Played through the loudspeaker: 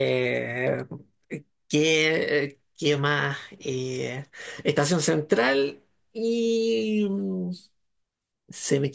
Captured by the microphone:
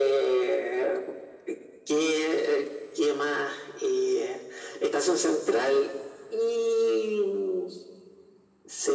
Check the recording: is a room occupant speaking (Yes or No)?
No